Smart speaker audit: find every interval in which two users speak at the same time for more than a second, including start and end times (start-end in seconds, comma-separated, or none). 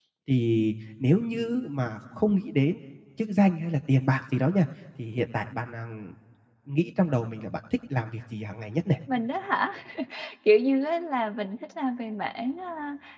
none